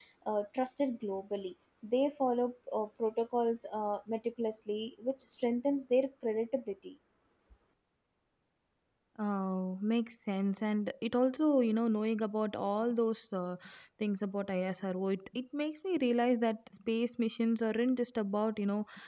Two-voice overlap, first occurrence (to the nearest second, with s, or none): none